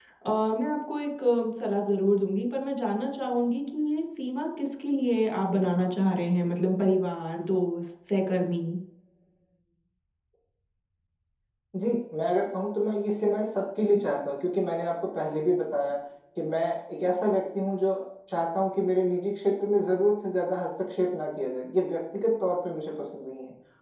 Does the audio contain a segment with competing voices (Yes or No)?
No